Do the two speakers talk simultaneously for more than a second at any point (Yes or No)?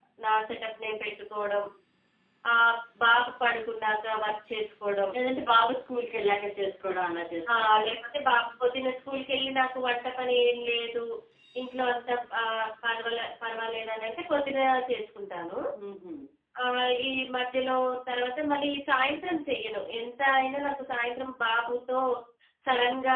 No